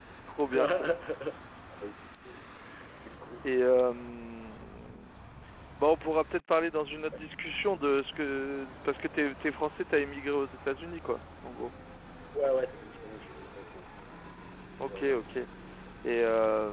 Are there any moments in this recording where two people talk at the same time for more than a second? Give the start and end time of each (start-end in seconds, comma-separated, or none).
none